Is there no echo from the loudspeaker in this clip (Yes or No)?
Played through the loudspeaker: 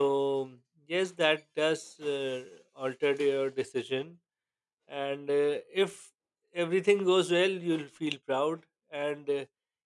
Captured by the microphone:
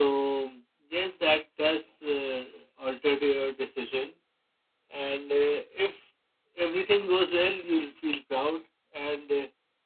No